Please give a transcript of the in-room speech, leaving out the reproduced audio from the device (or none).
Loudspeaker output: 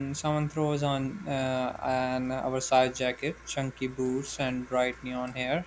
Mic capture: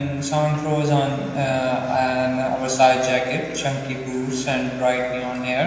none